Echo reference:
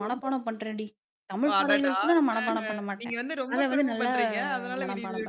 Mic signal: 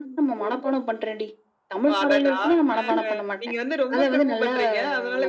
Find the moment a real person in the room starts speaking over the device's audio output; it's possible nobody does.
none

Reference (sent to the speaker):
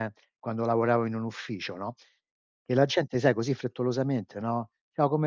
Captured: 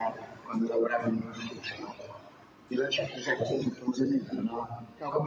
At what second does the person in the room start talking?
none

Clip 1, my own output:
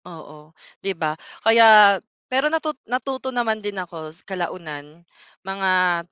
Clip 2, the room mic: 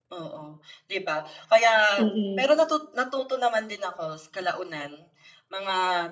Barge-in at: 2.0 s

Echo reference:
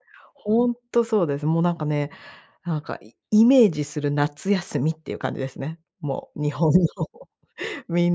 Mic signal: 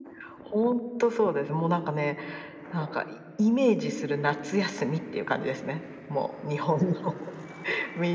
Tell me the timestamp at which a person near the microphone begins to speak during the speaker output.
none

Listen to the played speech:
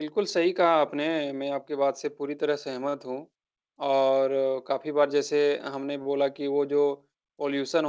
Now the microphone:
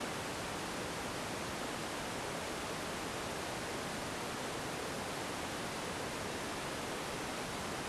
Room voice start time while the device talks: none

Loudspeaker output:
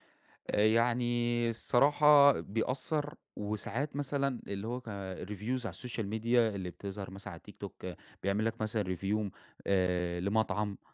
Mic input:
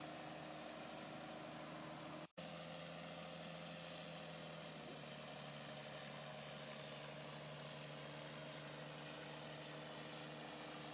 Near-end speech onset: none

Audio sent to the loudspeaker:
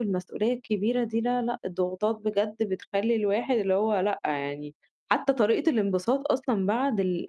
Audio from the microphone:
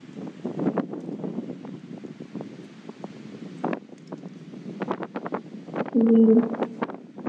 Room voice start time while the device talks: 5.9 s

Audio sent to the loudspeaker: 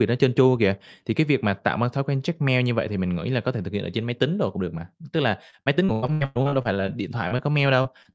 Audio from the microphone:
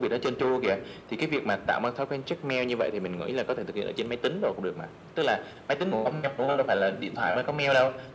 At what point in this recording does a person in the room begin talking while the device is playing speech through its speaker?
none

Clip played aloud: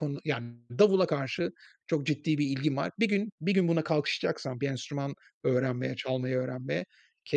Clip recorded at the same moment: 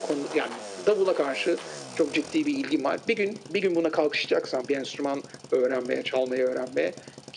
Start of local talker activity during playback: none

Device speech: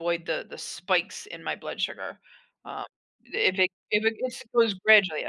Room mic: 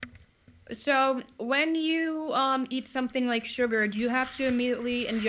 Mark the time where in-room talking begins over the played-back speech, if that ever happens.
0.7 s

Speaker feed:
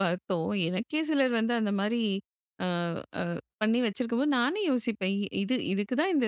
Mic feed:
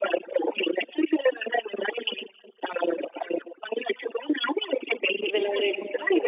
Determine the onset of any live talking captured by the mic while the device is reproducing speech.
5.3 s

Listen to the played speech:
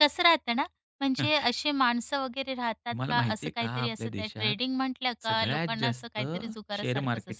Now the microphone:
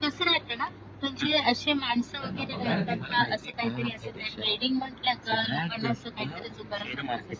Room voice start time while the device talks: 2.2 s

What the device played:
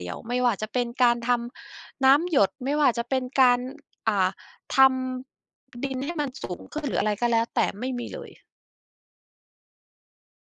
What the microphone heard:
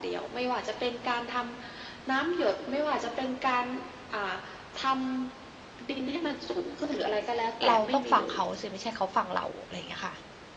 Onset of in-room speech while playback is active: 7.7 s

